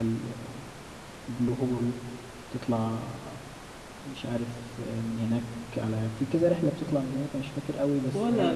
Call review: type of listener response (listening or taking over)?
taking over